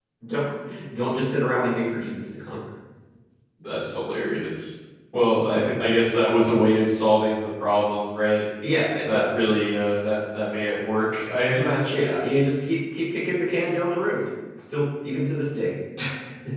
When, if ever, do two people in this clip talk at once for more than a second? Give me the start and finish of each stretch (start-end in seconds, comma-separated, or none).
none